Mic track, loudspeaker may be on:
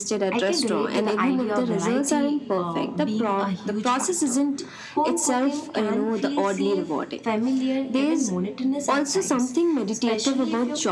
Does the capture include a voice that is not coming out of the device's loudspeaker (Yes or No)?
Yes